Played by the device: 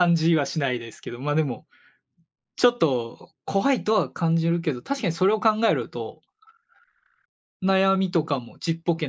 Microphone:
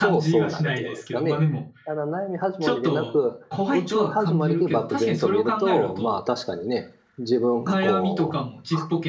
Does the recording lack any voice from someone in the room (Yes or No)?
No